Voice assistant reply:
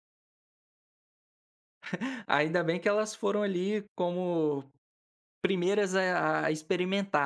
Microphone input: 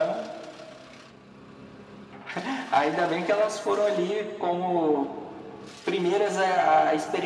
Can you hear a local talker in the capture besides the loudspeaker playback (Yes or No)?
No